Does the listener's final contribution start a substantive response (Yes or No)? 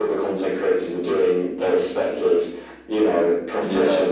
No